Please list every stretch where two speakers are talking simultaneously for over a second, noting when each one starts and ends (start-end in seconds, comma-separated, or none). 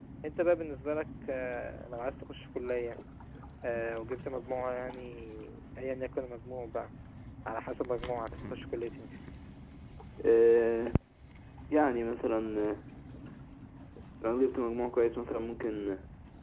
none